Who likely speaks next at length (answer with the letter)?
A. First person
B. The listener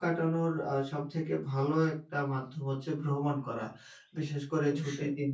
A